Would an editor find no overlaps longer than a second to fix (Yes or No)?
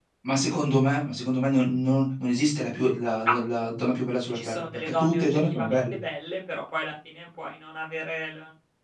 No